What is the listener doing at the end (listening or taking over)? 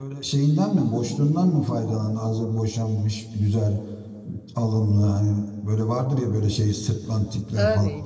taking over